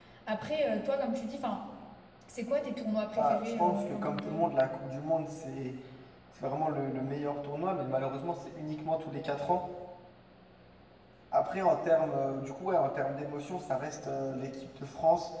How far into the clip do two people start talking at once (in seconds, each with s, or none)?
3.2 s